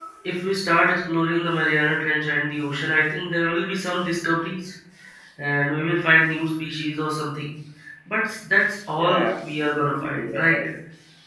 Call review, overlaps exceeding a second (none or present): present